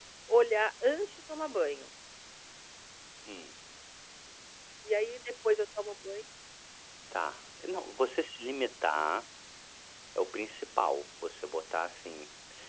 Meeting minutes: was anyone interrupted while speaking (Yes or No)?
No